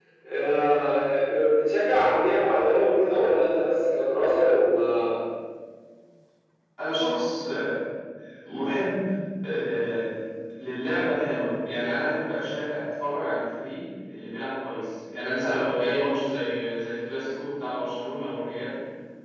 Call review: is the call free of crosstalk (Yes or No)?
Yes